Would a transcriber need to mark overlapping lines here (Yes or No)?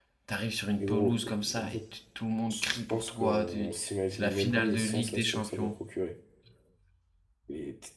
Yes